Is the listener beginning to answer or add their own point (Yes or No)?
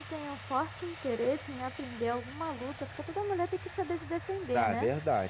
Yes